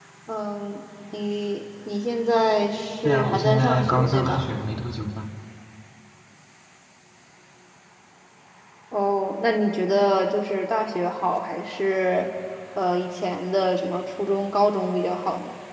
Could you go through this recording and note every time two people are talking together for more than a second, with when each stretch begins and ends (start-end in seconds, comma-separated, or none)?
3.0-4.5